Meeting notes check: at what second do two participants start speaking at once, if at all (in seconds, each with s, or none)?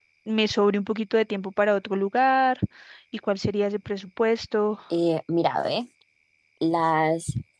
none